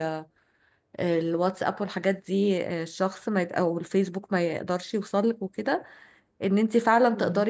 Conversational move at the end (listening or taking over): listening